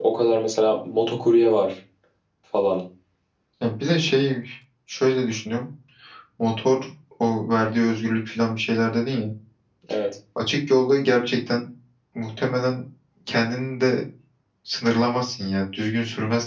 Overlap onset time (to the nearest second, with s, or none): none